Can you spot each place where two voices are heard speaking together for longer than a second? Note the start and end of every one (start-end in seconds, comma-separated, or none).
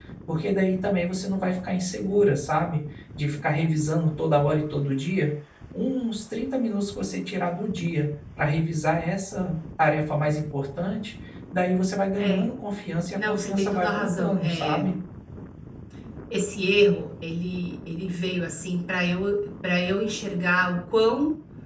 13.1-14.8